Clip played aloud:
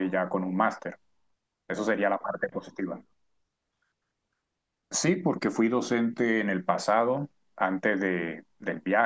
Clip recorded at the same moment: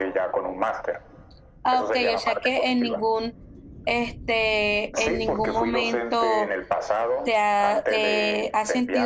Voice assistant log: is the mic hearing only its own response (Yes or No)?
No